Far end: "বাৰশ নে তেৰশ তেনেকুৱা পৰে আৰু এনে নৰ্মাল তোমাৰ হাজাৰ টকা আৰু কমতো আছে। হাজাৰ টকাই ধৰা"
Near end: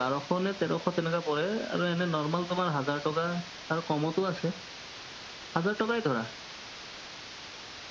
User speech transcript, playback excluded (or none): none